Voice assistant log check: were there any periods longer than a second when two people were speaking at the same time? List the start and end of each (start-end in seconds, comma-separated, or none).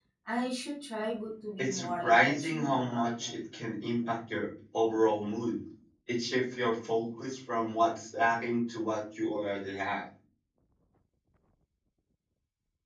1.6-3.4